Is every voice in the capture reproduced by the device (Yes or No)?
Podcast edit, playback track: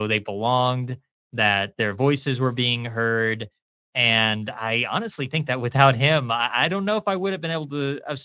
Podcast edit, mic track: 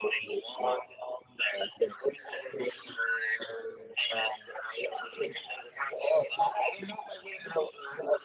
Yes